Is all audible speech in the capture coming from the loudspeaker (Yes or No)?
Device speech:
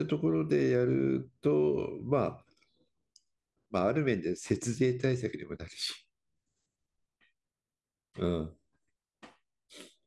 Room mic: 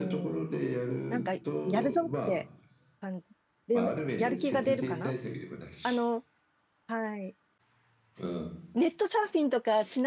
No